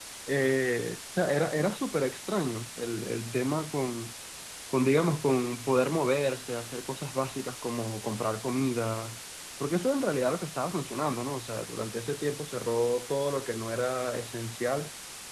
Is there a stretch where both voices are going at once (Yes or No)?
No